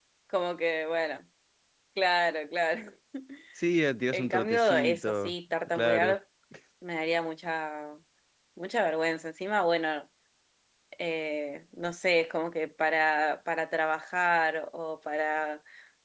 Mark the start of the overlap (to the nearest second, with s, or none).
4 s